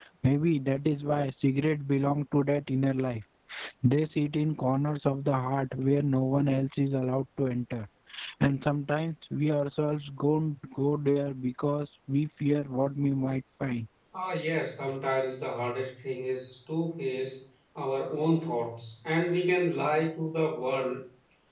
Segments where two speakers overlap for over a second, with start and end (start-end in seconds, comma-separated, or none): none